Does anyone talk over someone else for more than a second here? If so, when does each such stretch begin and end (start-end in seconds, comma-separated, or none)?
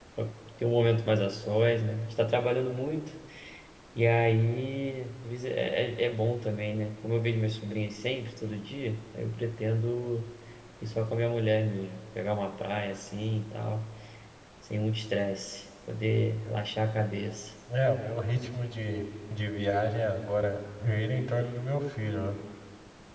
none